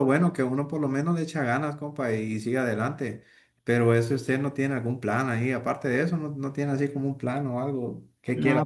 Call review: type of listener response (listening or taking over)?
taking over